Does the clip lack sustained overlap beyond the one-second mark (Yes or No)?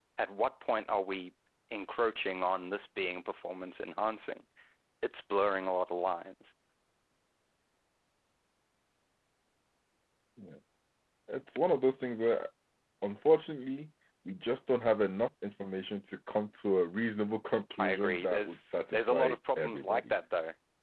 No